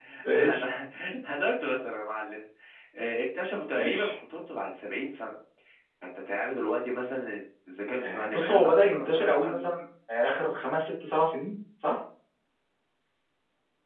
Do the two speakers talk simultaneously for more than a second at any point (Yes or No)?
Yes